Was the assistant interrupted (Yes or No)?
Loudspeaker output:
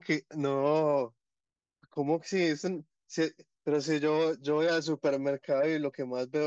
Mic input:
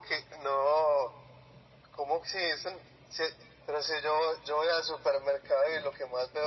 No